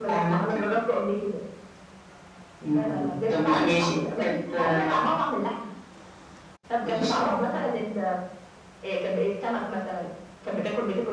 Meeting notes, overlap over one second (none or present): present